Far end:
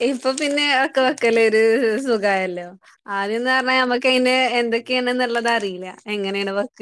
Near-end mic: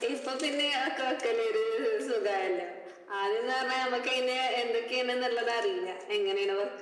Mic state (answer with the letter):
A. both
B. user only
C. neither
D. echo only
D